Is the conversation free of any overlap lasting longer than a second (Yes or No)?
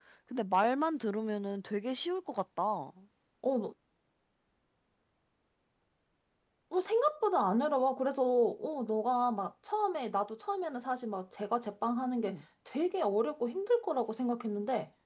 Yes